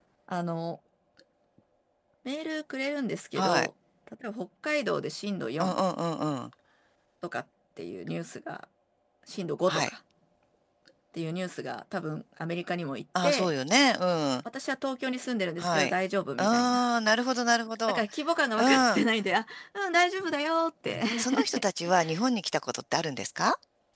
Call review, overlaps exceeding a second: none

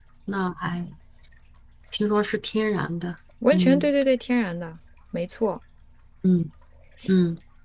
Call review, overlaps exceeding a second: none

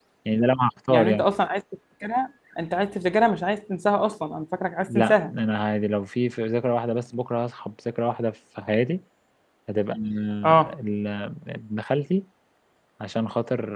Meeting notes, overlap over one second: none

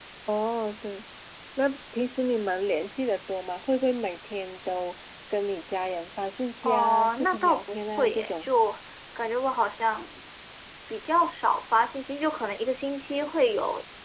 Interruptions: present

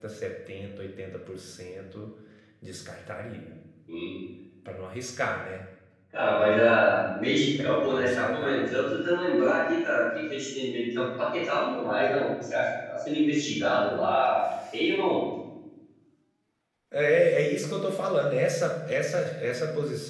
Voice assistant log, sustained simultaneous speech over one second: present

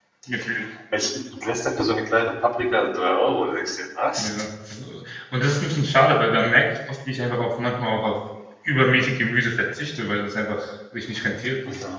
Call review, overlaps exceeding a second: none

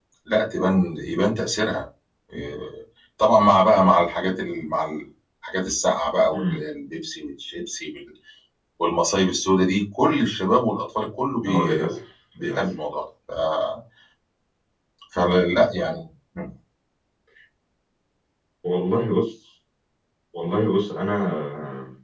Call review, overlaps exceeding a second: none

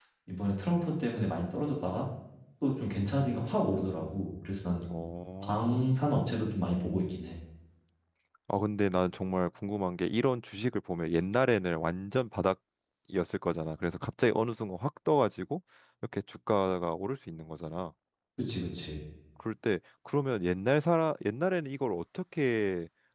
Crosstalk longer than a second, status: none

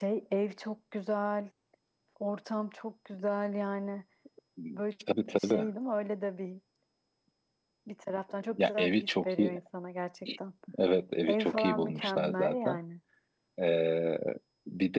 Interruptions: present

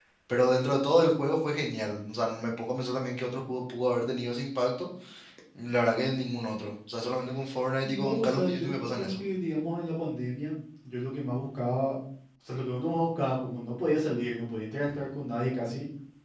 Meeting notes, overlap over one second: present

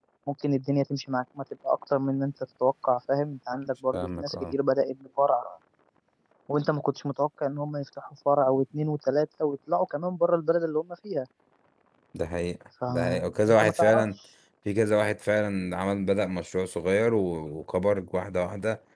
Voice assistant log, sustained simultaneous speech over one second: present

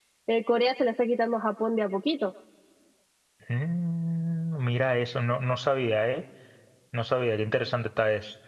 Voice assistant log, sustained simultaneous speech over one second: none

